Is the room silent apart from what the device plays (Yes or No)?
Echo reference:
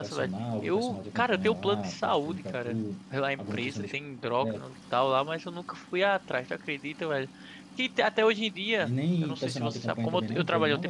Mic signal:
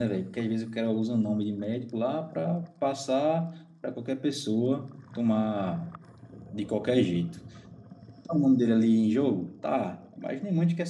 No